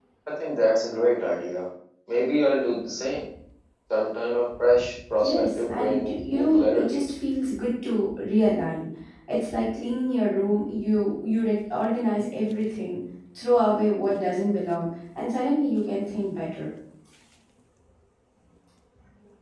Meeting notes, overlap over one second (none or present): present